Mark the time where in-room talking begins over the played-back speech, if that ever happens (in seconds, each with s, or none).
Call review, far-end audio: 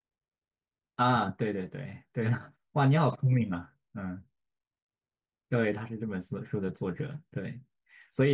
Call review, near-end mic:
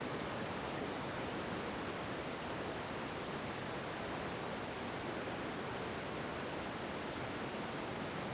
none